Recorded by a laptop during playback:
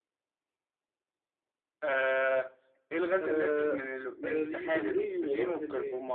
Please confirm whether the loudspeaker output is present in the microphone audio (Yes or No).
Yes